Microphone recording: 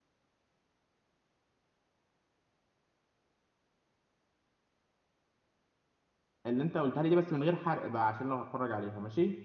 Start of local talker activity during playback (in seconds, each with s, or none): 6.5 s